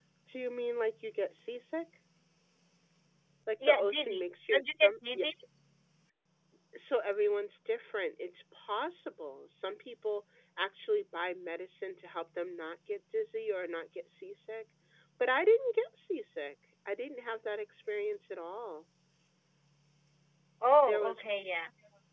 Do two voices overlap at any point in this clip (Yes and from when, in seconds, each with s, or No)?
Yes, from 3.7 s